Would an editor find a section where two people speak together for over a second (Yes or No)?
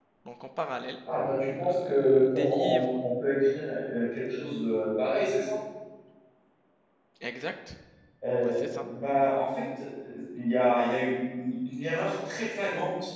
Yes